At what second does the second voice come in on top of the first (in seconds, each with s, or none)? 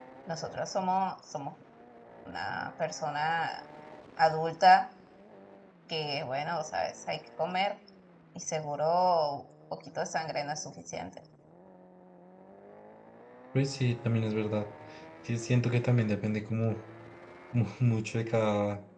none